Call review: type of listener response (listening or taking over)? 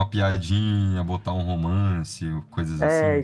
taking over